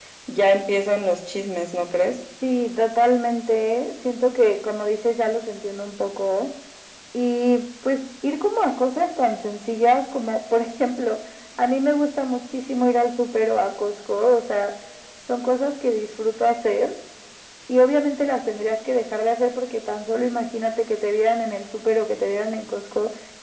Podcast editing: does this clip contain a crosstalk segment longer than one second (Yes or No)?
No